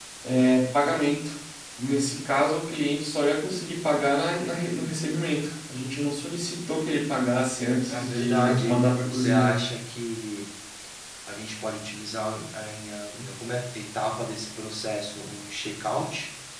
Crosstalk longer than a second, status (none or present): present